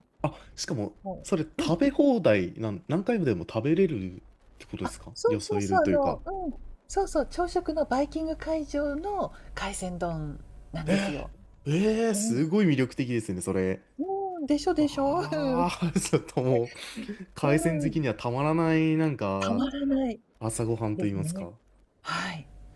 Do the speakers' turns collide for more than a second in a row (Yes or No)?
Yes